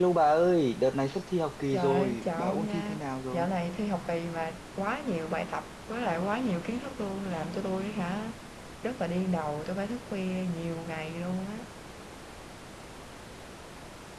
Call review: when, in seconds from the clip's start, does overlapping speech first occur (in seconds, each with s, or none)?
1.7 s